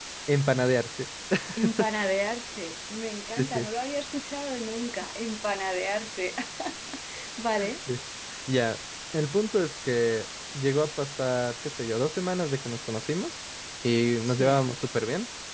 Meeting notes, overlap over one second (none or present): none